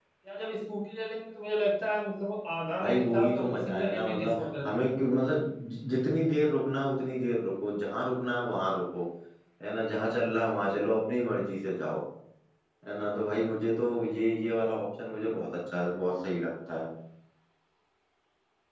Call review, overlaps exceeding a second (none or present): present